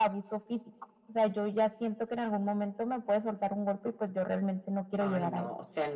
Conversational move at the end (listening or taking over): taking over